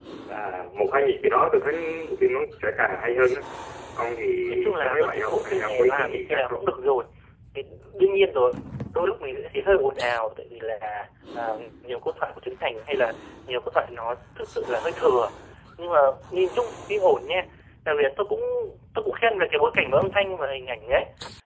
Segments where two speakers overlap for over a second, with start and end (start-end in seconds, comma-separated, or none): 4.5-6.7